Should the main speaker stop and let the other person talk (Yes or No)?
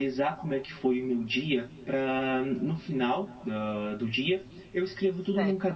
No